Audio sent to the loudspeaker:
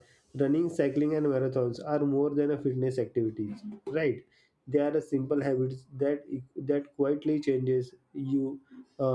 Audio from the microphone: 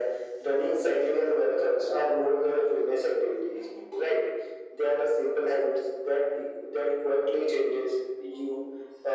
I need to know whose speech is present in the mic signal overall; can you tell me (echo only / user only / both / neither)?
echo only